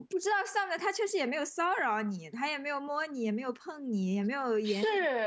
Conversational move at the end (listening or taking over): taking over